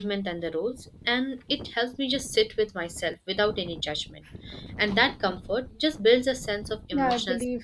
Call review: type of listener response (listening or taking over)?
taking over